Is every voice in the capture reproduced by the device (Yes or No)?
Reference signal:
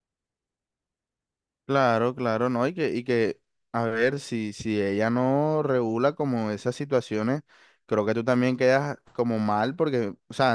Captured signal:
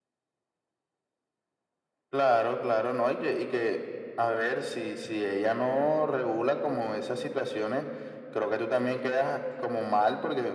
Yes